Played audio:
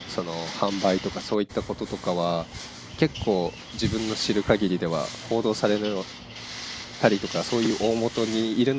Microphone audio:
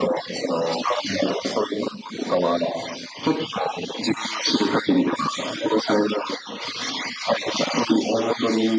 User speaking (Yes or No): No